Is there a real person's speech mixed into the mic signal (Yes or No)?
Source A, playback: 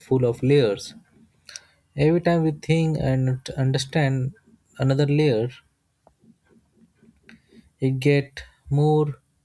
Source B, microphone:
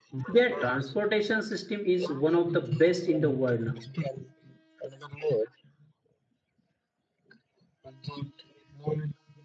Yes